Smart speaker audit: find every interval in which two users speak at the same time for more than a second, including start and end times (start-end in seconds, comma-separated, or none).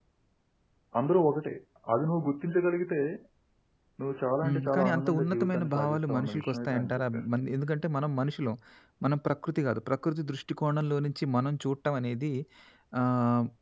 4.4-7.0